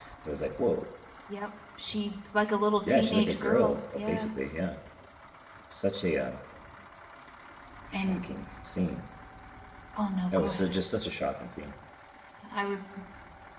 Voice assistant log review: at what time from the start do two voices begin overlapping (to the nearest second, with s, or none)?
3 s